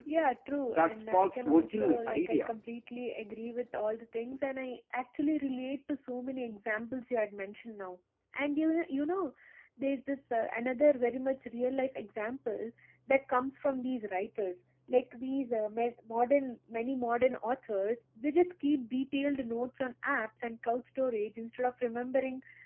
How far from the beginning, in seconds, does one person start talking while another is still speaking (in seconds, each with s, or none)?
0.6 s